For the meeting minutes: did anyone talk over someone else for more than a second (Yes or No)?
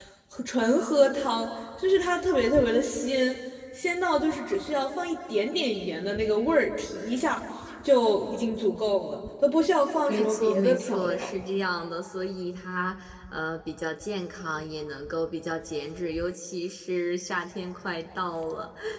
Yes